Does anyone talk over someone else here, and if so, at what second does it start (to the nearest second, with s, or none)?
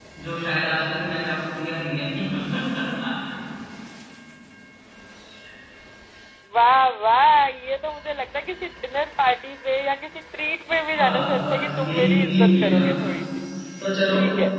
11 s